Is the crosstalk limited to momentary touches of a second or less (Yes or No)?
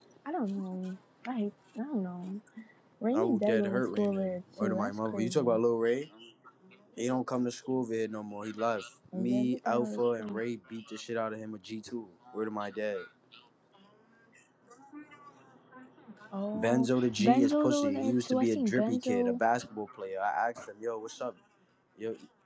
No